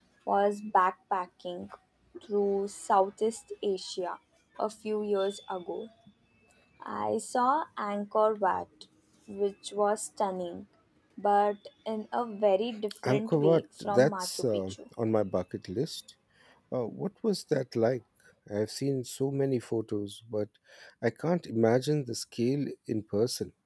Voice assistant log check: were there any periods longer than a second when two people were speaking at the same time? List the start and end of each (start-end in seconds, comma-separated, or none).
13.1-14.8